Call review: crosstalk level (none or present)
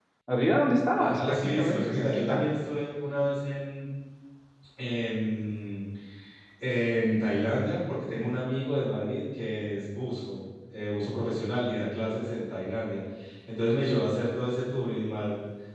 present